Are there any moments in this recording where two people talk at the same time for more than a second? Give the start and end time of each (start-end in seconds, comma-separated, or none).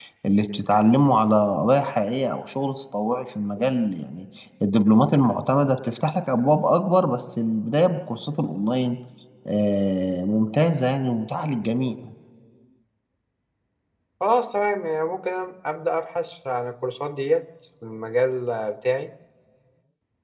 none